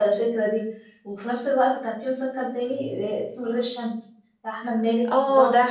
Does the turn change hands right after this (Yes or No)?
Yes